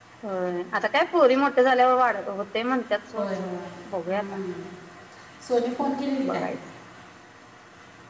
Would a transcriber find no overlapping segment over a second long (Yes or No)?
Yes